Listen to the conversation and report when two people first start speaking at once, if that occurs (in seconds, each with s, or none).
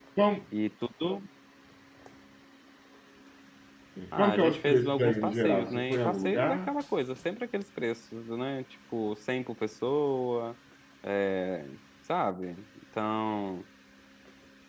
4.2 s